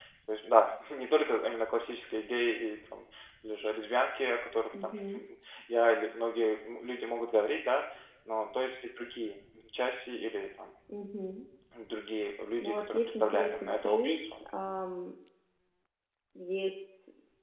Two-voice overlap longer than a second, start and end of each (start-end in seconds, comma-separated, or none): 12.6-14.2